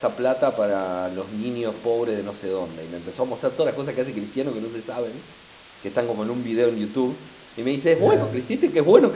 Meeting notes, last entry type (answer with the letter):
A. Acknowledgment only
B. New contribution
A